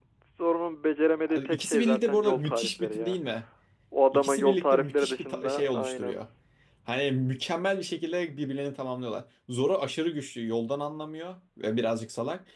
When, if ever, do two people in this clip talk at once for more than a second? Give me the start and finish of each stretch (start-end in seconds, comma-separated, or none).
1.5-3.2, 4.1-6.2